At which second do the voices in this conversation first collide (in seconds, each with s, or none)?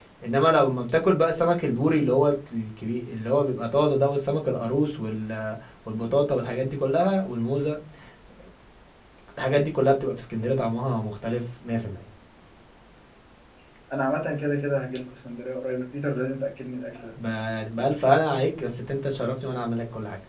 none